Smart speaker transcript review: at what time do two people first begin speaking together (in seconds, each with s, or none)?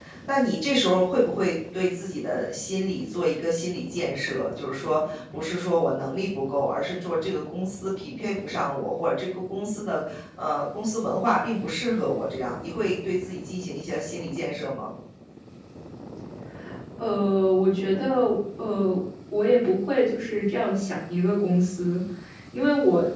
none